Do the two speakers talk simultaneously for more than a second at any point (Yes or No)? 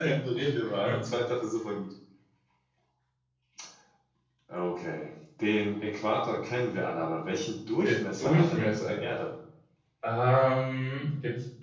Yes